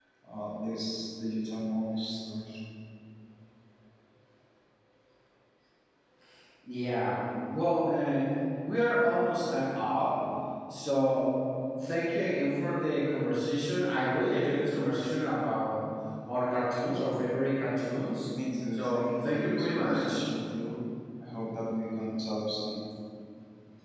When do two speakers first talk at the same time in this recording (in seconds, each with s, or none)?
18.7 s